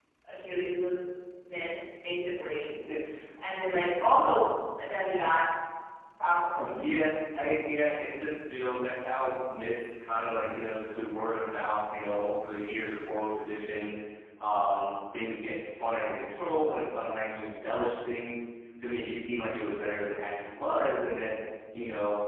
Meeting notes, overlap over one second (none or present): none